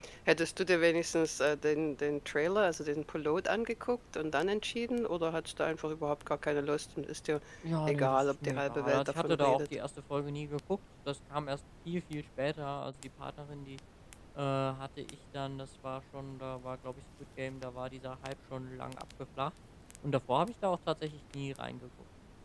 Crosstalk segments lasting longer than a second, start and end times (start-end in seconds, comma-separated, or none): 7.9-9.6